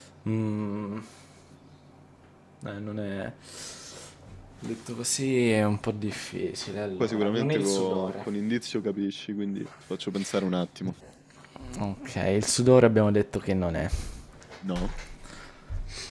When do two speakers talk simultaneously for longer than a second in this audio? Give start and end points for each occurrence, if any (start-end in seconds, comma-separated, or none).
7.0-8.2